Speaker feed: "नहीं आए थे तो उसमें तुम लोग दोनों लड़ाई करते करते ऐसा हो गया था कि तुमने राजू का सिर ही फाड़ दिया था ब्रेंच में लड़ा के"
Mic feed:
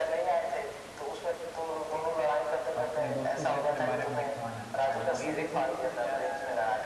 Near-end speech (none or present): present